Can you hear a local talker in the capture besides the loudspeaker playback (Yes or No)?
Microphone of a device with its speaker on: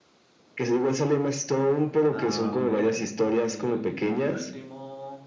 Yes